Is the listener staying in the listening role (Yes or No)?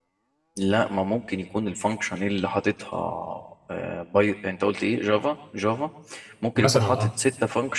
Yes